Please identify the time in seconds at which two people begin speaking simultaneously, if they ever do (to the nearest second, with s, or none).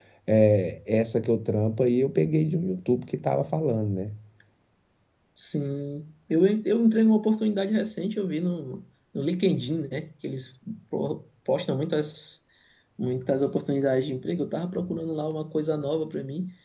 none